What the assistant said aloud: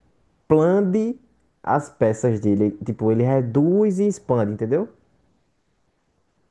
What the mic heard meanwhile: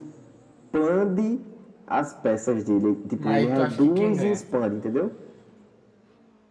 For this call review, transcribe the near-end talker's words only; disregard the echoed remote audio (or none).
Mas tu acha que quem ganha?